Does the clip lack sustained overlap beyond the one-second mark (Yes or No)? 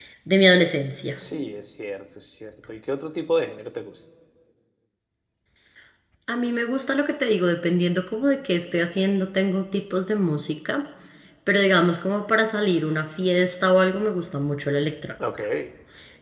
Yes